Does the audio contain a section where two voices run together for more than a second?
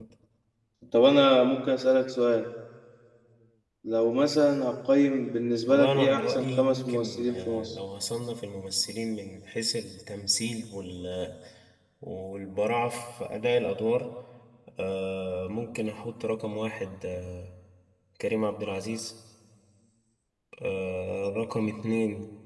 Yes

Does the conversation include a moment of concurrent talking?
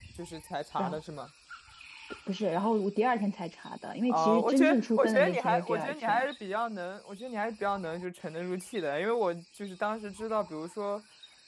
Yes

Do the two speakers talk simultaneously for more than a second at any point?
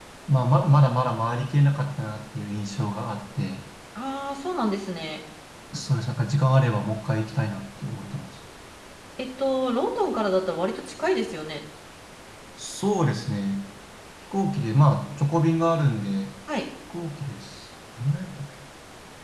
No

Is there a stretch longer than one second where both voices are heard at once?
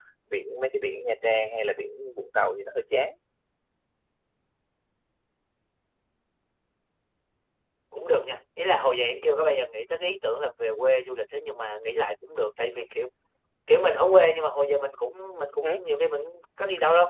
No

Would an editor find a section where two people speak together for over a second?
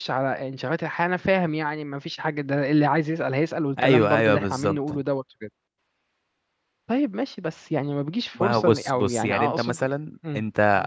Yes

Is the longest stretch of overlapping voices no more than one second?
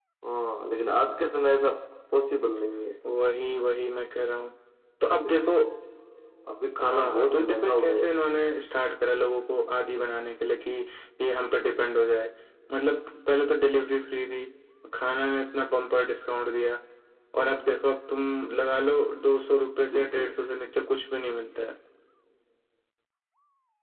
No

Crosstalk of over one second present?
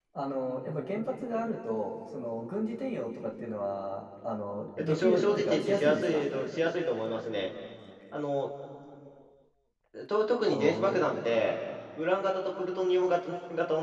Yes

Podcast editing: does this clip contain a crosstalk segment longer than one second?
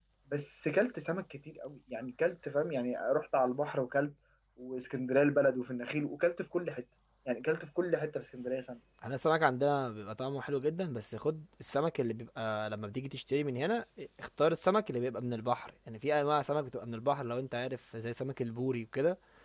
No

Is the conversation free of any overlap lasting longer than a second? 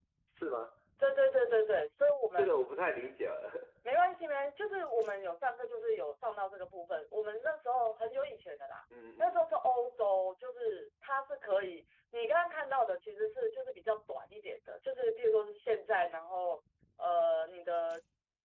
Yes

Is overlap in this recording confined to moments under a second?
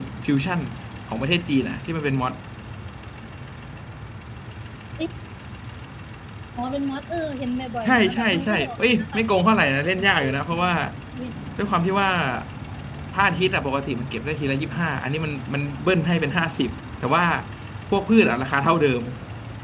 No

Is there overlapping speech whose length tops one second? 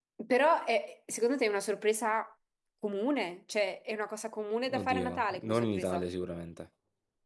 Yes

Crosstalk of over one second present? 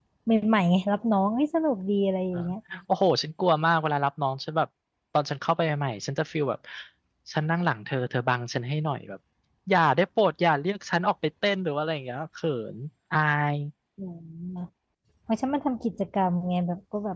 No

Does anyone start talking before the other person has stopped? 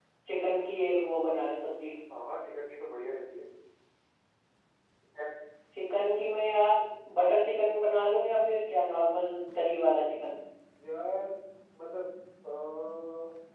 No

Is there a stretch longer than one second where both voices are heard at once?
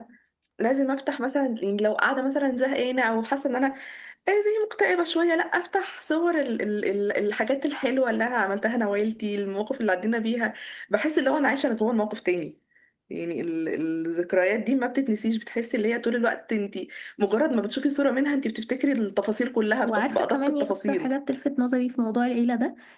Yes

